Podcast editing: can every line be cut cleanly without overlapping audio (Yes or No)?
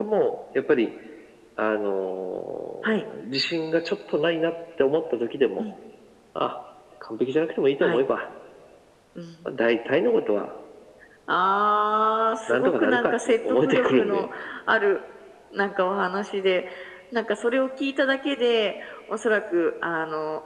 No